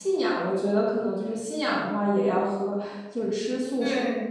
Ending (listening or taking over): listening